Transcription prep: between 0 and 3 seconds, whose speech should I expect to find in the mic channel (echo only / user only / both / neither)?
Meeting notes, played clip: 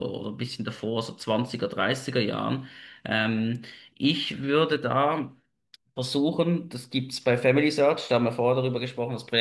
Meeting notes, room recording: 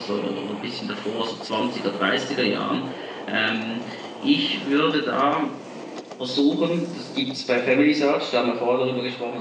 echo only